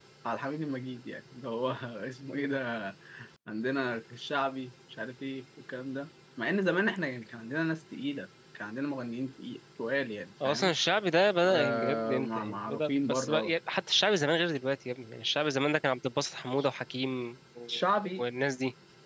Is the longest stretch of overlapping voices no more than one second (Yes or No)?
No